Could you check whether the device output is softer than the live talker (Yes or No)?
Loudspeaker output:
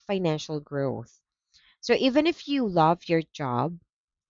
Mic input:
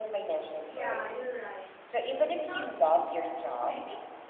No